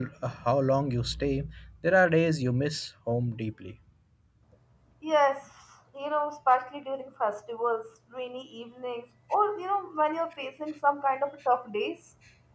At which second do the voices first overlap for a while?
none

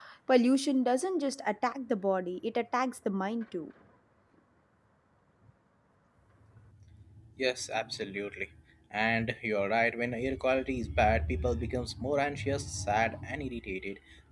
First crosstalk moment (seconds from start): none

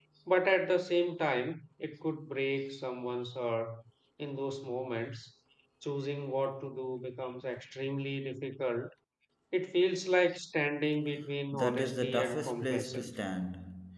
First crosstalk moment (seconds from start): 12 s

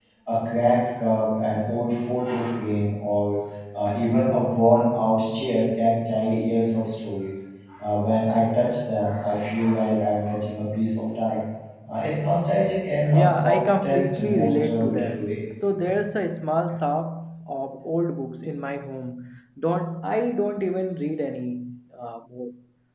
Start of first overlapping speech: 13 s

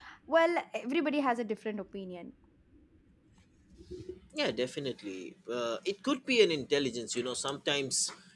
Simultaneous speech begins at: none

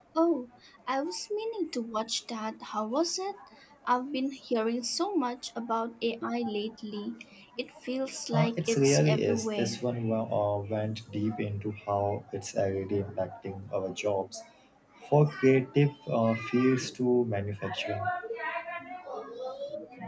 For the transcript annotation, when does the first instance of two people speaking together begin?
8 s

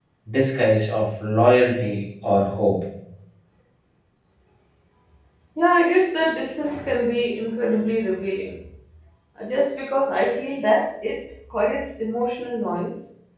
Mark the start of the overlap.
none

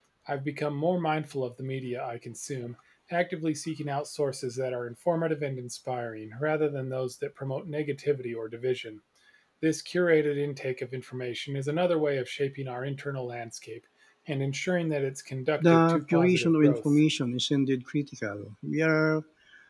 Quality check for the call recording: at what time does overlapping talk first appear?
16 s

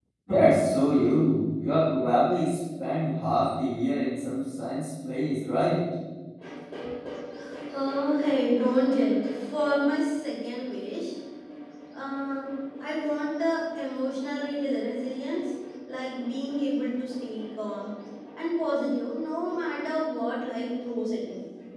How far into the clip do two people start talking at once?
none

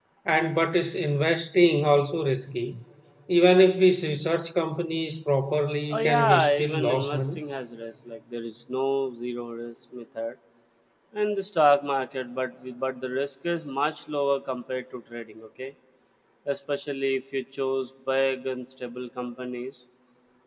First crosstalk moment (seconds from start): 6 s

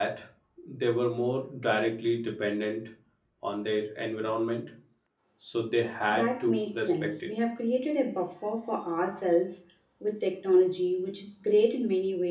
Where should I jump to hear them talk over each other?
6 s

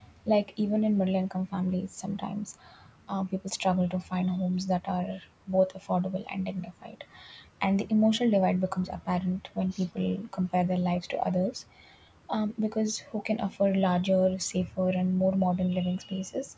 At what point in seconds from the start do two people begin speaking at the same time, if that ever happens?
none

